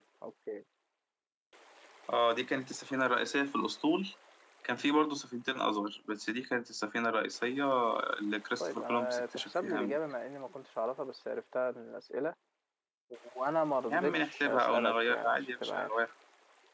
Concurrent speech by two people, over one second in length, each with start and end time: 8.6-10.0, 13.9-16.0

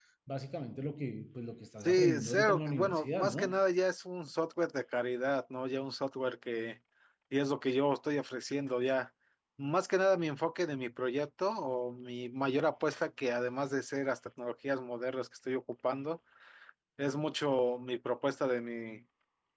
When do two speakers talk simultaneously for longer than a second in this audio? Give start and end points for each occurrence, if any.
1.8-3.6

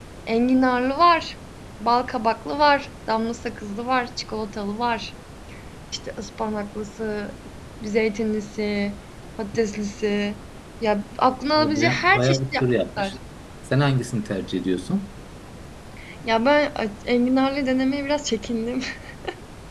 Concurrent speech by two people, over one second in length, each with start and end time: 11.6-13.1

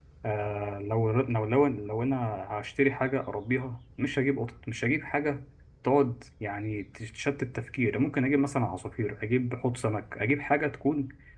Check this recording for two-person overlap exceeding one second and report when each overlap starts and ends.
none

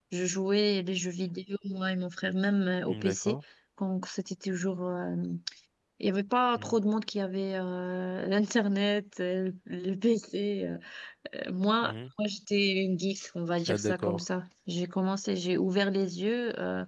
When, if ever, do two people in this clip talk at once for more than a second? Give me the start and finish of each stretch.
none

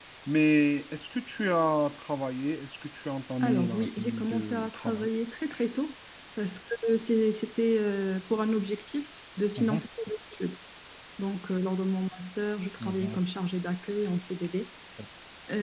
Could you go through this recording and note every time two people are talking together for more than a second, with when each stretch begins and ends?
3.4-5.1

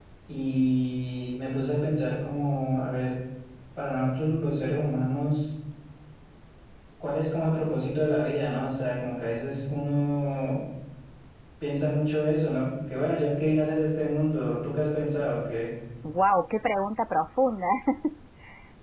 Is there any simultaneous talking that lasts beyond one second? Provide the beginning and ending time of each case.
none

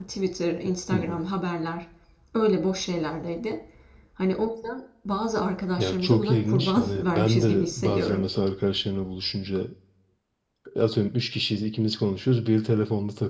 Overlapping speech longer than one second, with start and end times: 5.8-8.2

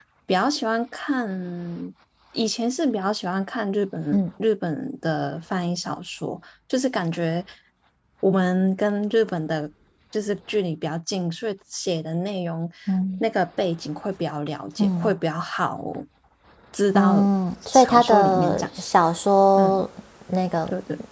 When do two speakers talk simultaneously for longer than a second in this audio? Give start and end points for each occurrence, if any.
17.7-19.0

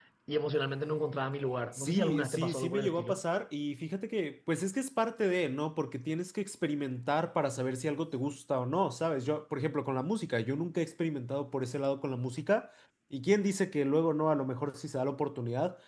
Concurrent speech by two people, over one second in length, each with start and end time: 1.7-3.2

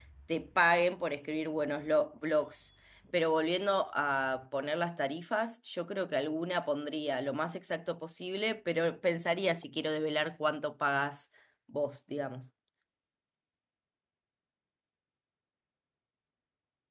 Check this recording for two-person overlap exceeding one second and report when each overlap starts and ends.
none

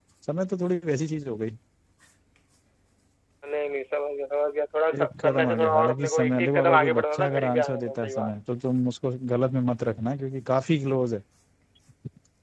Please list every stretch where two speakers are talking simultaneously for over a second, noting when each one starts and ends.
5.0-8.3

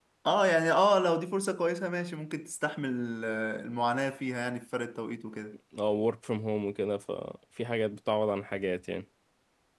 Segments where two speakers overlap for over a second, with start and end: none

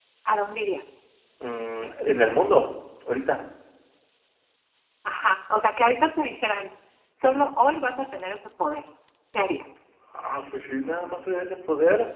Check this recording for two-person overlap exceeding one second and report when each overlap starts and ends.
none

